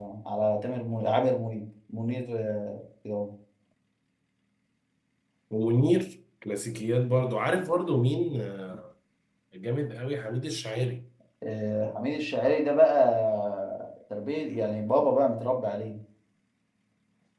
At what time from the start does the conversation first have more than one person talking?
none

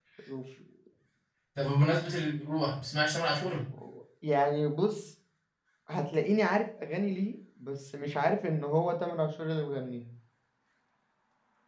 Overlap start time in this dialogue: none

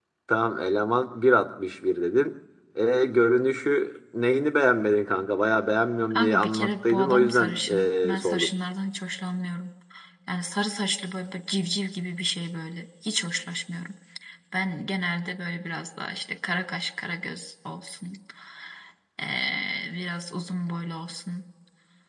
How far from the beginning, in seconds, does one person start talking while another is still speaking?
6.1 s

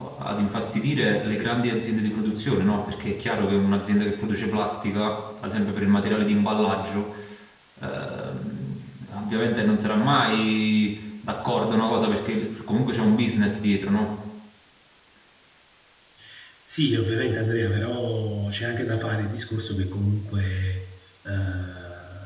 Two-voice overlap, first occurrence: none

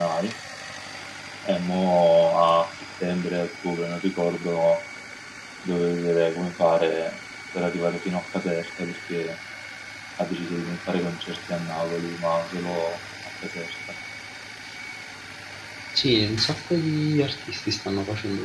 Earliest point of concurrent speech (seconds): none

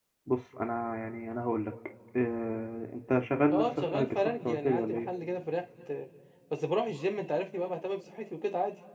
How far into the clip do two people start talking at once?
3.5 s

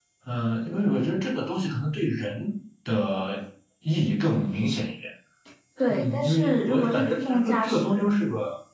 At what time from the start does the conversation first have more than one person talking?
5.9 s

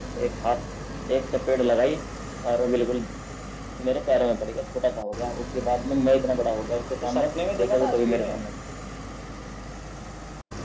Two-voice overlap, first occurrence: 7.0 s

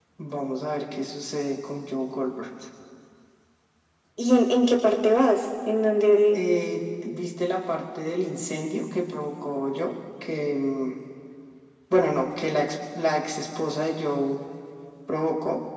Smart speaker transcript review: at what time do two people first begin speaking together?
none

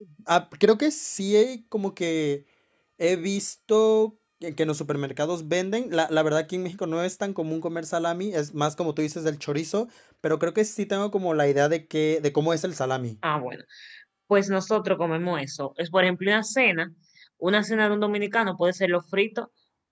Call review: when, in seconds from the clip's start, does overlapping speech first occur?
none

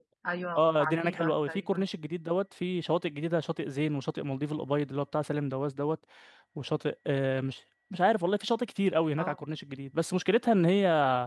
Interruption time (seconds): 0.6 s

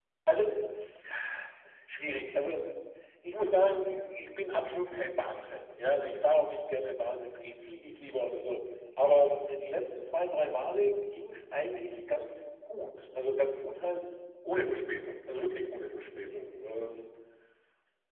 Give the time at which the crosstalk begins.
none

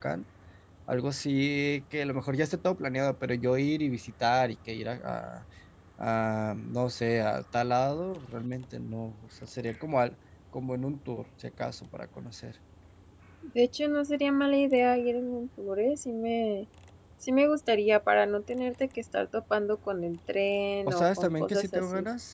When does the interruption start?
20.9 s

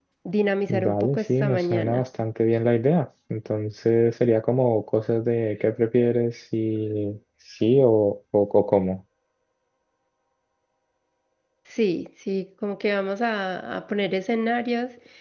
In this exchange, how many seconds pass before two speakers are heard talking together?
0.7 s

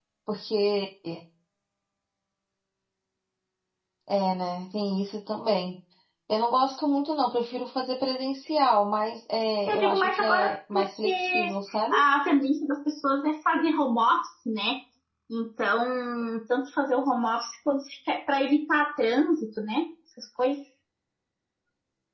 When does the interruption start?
9.7 s

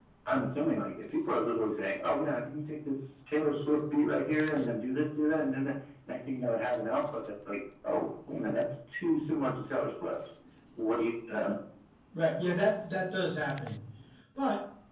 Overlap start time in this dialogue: none

